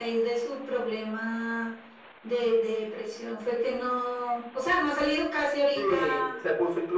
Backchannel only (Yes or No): No